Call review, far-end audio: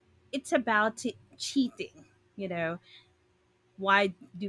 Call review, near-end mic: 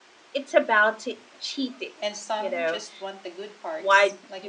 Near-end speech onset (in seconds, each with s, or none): 2.0 s